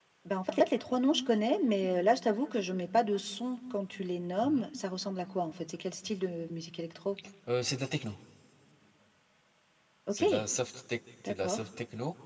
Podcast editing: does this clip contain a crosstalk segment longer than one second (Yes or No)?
No